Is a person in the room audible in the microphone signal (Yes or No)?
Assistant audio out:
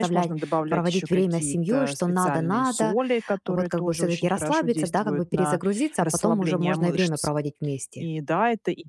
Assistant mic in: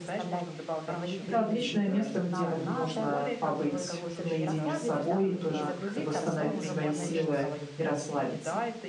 Yes